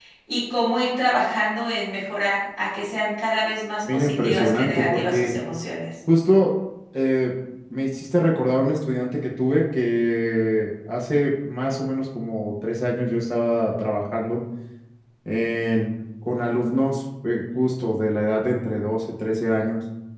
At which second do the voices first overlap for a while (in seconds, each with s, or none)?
3.8 s